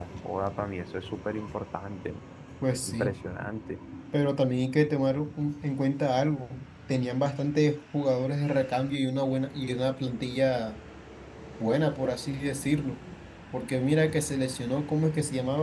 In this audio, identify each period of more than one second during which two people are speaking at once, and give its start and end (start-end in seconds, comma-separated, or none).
none